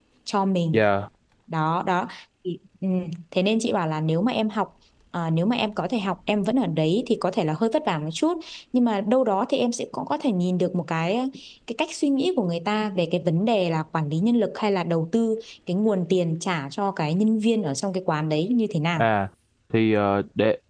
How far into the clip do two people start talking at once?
none

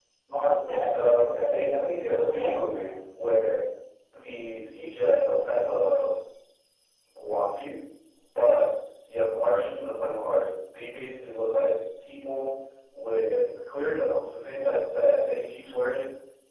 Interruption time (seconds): 0.8 s

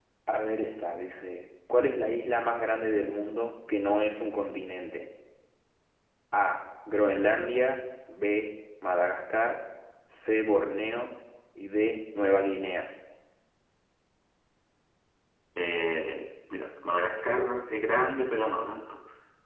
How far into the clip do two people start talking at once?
none

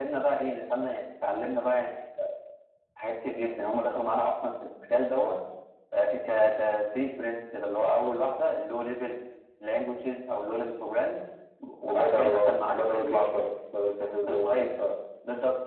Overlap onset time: 11.8 s

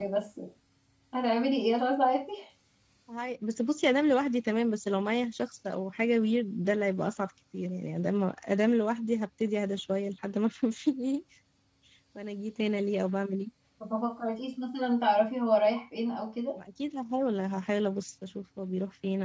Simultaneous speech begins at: none

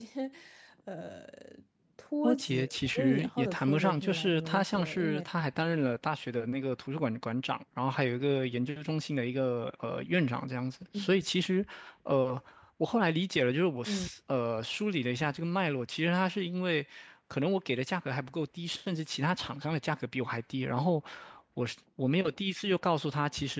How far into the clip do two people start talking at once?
2.2 s

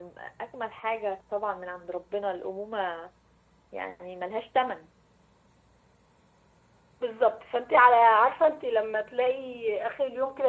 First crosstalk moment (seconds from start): none

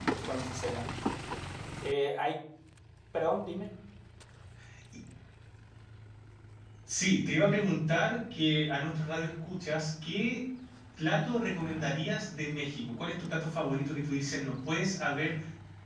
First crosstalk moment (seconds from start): none

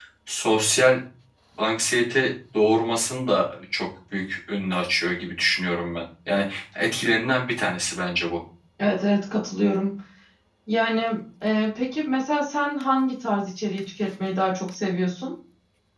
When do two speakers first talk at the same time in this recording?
none

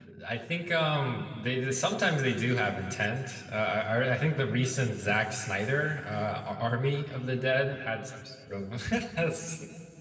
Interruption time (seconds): none

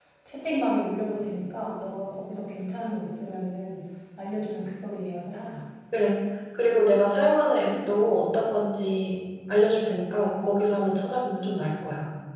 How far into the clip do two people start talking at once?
none

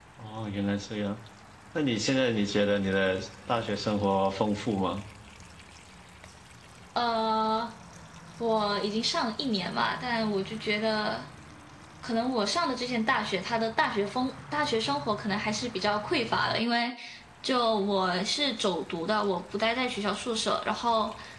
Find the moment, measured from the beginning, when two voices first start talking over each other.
none

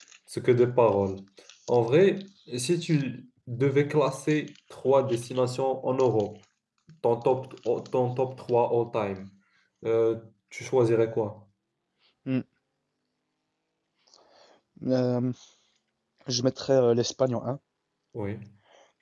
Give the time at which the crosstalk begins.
none

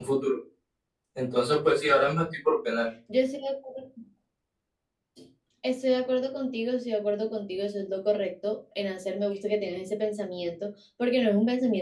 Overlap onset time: none

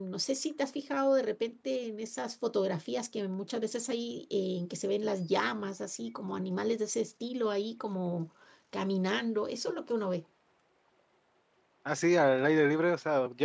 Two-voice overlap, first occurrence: none

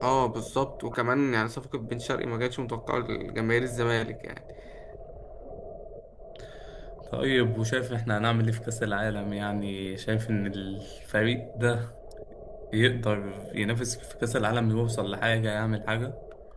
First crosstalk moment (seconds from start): none

